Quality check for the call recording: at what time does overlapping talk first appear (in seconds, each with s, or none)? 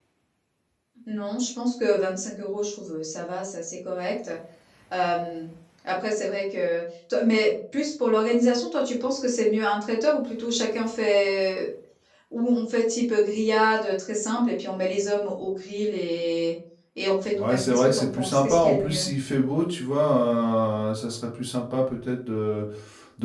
17.4 s